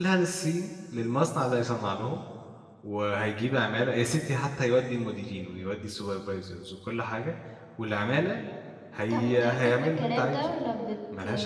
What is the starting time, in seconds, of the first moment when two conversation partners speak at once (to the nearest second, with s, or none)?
9 s